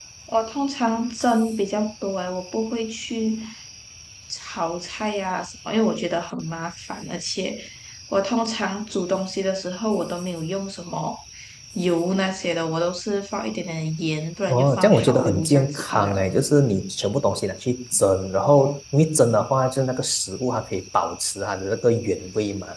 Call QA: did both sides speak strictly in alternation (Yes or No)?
No